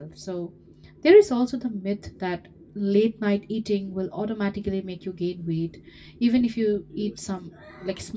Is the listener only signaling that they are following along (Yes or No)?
Yes